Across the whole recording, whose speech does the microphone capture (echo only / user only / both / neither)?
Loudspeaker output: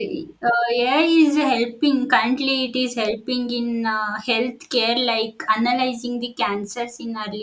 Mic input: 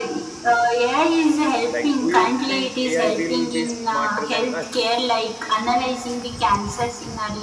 both